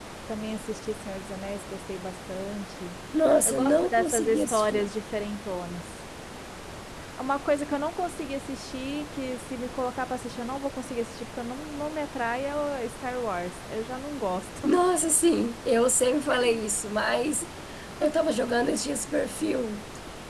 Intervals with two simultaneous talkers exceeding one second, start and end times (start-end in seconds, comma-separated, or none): 3.4-4.9